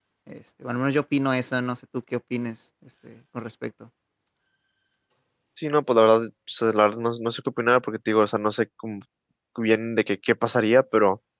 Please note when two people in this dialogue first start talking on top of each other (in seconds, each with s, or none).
none